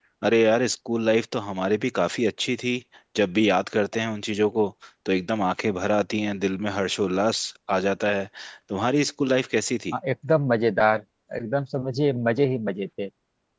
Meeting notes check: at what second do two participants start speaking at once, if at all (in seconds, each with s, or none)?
none